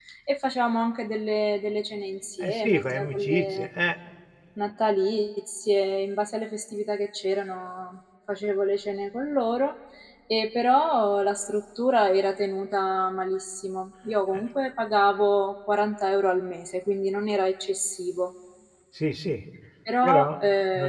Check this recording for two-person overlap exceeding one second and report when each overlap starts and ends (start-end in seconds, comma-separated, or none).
2.4-3.7